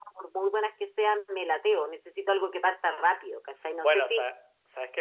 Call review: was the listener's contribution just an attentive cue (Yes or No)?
No